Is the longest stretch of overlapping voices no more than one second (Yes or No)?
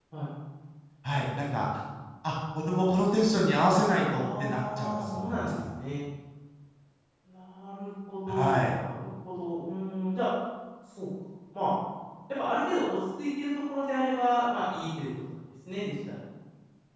No